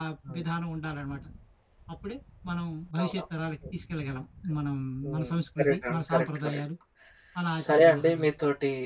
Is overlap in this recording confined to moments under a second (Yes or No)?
No